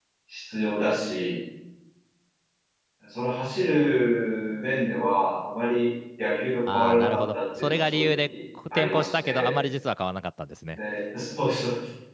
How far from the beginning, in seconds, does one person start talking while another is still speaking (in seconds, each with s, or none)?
6.7 s